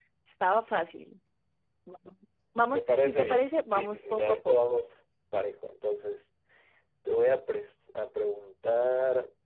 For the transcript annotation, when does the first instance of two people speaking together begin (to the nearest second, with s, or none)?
3 s